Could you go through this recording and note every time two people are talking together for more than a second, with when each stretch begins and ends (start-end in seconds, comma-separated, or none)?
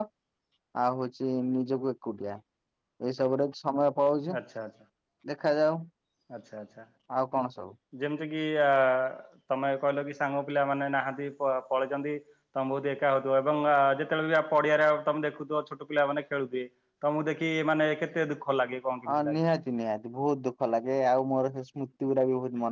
none